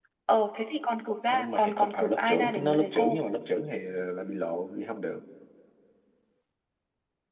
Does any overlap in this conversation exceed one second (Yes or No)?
Yes